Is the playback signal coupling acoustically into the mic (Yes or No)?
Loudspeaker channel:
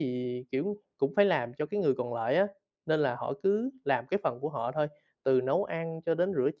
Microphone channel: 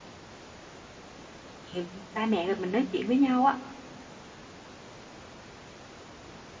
No